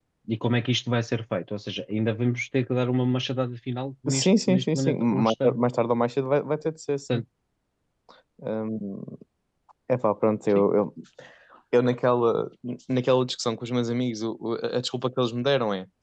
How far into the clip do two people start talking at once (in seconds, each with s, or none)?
4.1 s